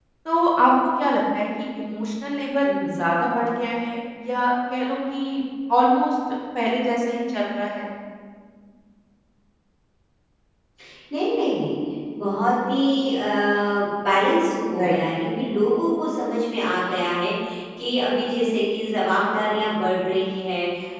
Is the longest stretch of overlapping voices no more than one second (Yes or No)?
Yes